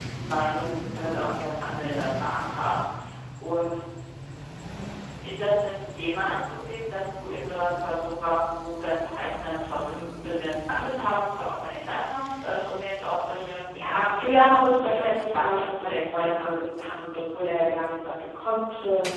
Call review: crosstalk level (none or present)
present